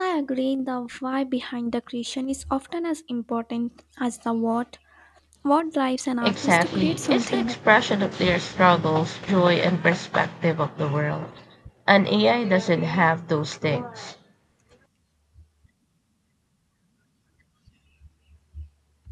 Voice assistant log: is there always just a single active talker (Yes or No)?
No